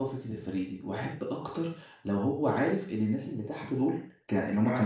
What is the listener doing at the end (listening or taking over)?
listening